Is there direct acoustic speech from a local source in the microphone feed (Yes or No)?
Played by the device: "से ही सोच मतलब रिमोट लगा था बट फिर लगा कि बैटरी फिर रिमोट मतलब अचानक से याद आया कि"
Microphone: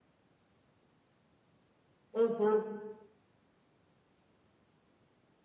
Yes